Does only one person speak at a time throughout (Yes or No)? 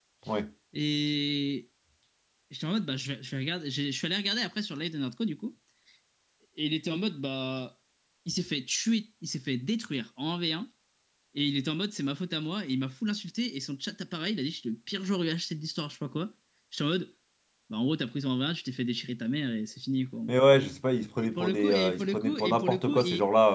No